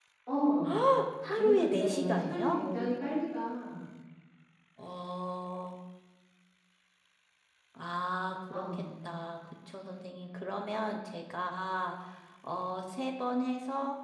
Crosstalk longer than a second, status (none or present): present